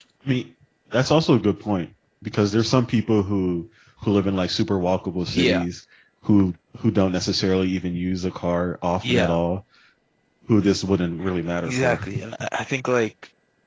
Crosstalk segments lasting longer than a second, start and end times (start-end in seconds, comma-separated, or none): none